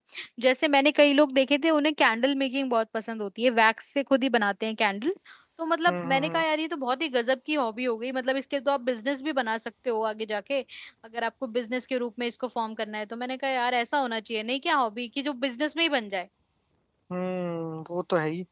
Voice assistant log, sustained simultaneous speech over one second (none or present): none